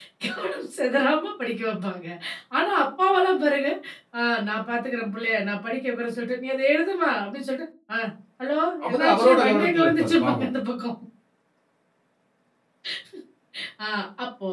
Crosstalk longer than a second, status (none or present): present